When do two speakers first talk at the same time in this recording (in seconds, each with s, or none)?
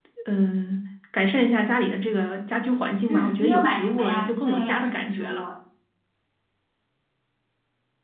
3.1 s